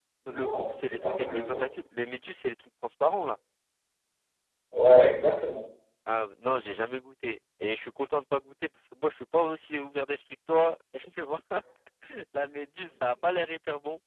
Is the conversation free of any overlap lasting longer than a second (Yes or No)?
No